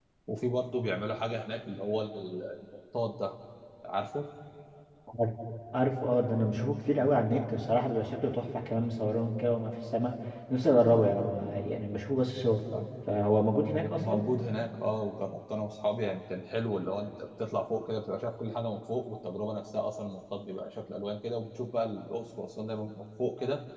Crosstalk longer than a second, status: none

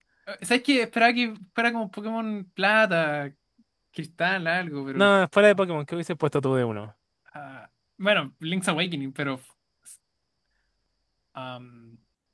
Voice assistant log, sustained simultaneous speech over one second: none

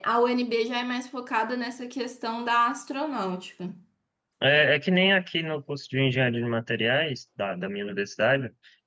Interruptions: none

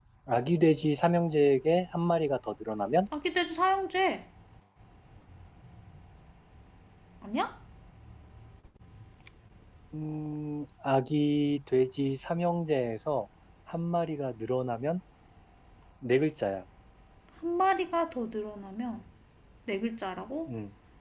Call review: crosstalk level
none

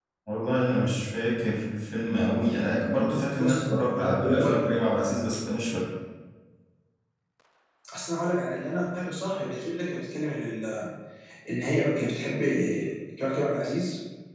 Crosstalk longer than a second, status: present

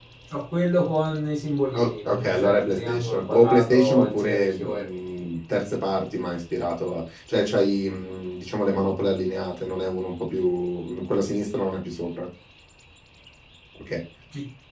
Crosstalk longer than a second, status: present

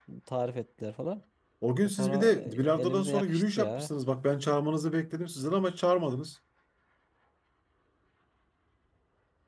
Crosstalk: present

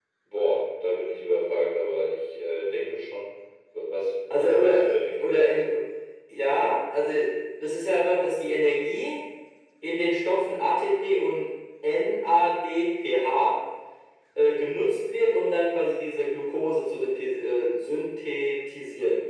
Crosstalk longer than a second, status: present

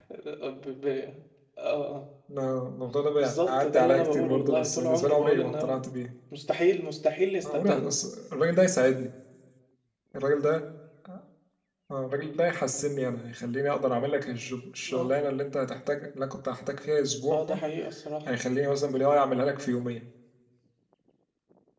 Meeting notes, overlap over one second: present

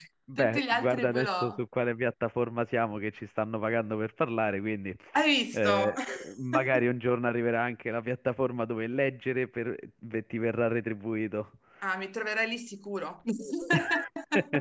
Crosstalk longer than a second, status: present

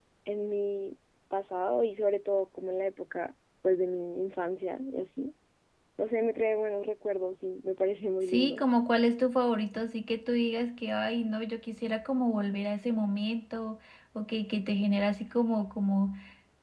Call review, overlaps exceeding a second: none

